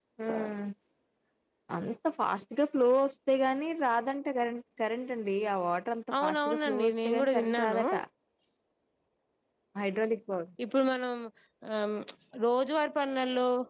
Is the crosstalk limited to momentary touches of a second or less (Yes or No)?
No